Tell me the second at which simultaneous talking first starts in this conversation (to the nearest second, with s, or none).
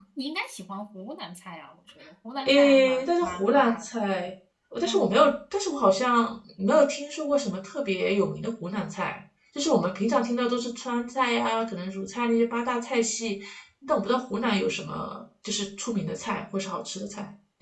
2 s